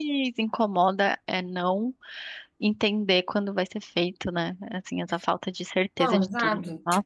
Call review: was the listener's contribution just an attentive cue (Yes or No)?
No